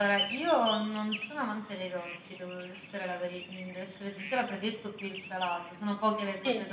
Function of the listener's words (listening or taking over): listening